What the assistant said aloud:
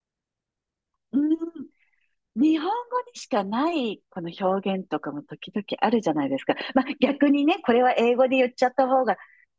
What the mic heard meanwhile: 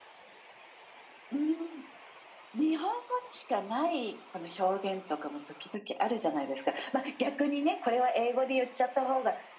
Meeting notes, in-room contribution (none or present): none